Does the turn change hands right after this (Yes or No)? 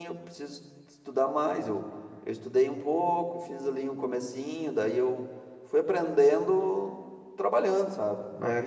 Yes